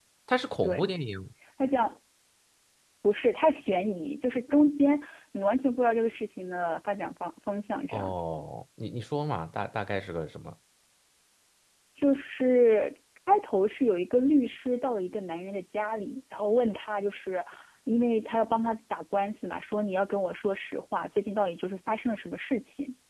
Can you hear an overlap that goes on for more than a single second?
No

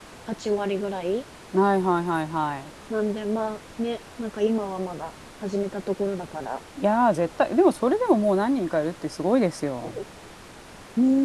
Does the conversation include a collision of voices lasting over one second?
No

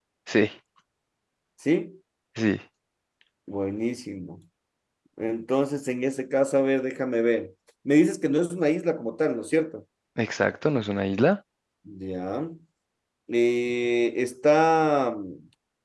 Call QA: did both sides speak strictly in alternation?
Yes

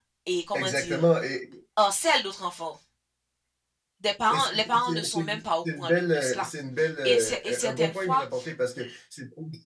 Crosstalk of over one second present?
Yes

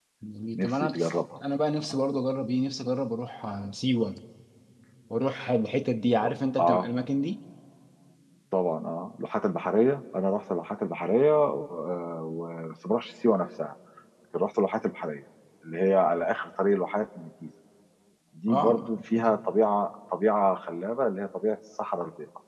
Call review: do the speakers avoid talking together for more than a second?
Yes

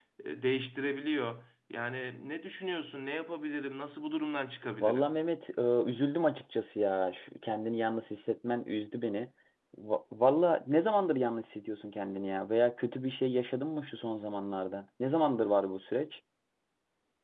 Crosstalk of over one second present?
No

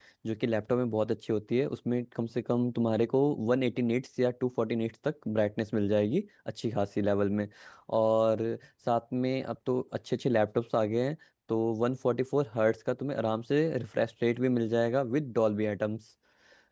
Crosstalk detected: No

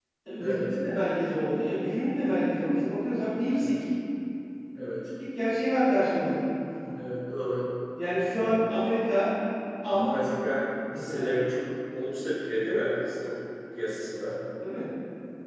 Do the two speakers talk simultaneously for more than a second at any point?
No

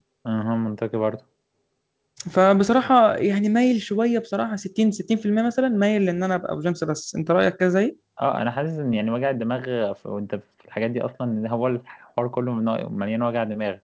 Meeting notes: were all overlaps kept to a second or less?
Yes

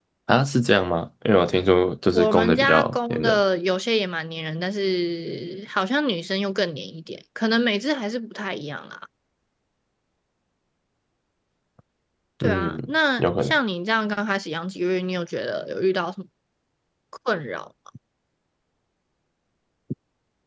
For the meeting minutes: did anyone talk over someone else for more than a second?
Yes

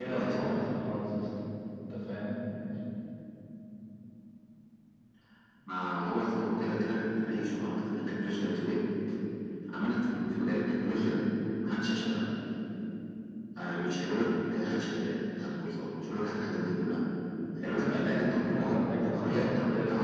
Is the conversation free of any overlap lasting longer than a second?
No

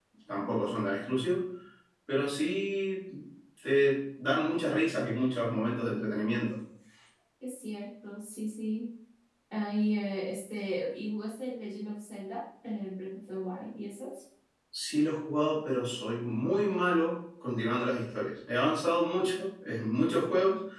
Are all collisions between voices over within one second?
Yes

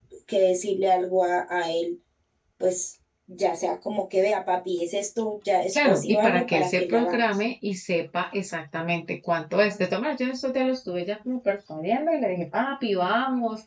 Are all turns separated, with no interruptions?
No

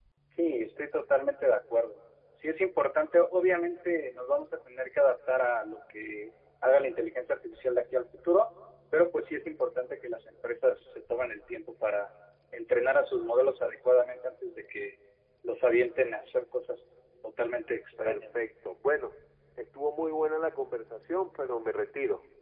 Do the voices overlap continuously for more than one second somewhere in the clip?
No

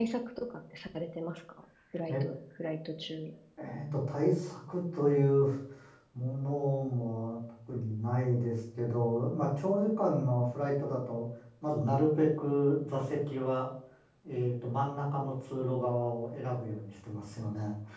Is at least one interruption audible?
No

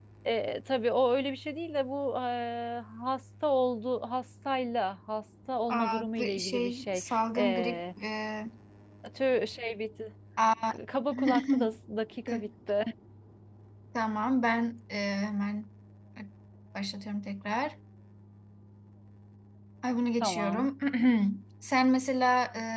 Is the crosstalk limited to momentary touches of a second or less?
No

